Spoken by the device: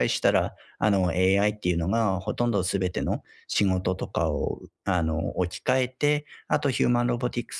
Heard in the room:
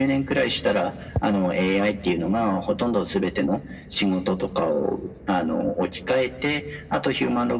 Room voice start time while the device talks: none

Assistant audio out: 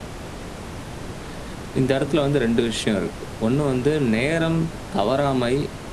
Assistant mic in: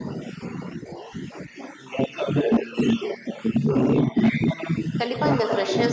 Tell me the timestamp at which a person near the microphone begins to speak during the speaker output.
5.0 s

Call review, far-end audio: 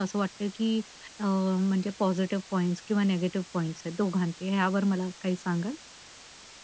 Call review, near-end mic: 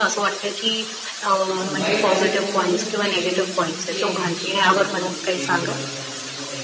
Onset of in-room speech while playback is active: 1.6 s

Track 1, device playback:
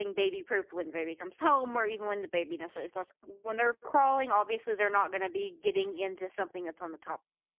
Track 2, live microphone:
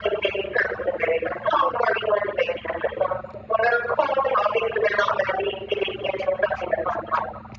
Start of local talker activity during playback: none

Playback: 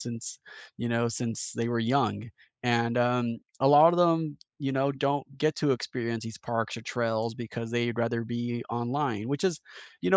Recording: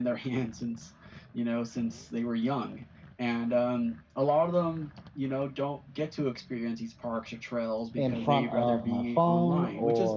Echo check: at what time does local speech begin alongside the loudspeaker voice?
8.0 s

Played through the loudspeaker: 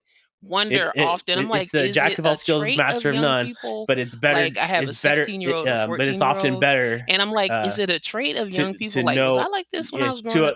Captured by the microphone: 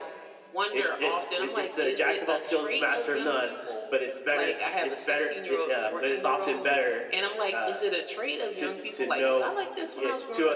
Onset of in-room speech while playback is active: none

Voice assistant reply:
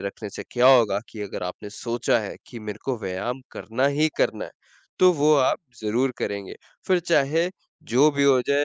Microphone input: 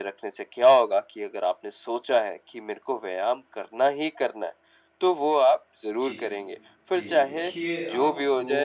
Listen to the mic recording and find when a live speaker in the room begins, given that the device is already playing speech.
6.0 s

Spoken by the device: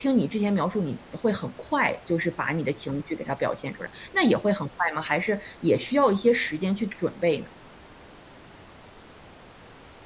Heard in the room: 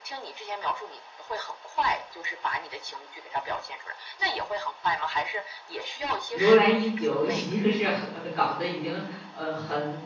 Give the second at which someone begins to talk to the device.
6.3 s

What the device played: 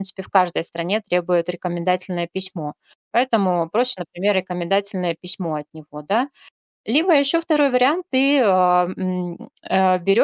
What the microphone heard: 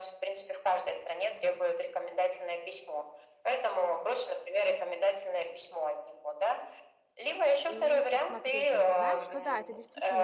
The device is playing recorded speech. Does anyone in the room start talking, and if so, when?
7.6 s

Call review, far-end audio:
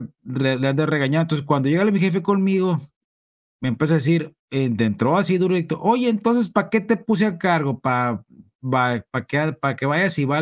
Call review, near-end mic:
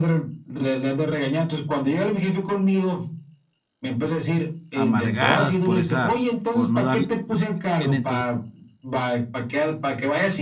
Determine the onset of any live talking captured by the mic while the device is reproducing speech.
4.7 s

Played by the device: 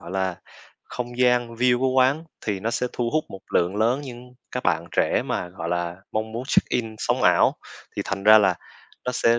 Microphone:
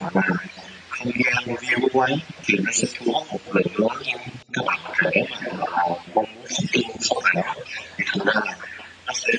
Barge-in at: none

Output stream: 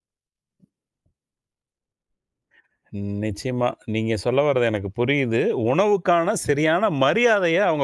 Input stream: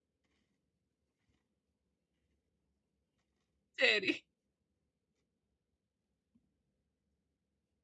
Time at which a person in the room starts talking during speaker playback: 3.8 s

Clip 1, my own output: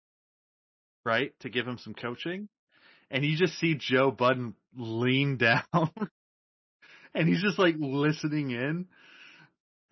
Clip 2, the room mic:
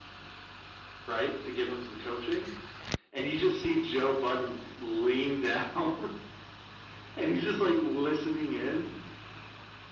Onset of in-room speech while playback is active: none

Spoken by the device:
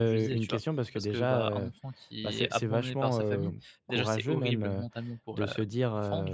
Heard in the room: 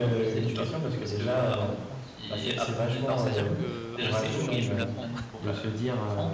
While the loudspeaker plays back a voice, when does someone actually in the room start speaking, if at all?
3.1 s

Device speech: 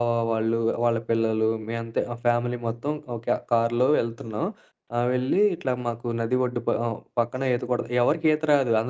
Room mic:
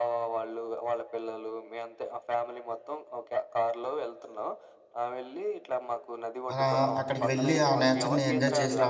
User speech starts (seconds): 6.5 s

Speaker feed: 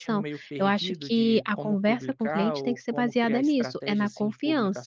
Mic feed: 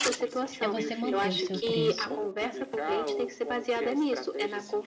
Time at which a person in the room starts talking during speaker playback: 0.6 s

